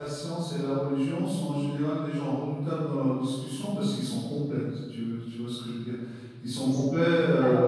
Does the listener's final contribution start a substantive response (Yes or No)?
No